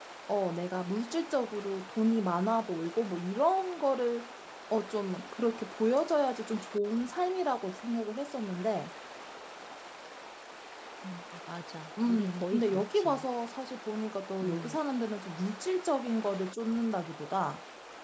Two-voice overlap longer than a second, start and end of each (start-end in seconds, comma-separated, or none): 12.1-13.2